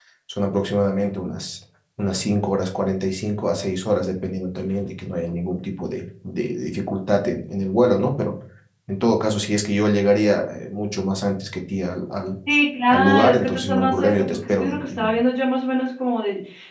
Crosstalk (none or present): present